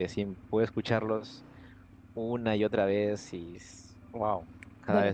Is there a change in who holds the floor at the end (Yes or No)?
Yes